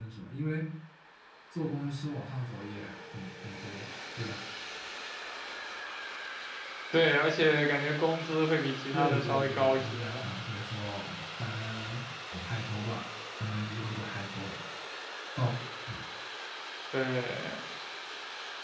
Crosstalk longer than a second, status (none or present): present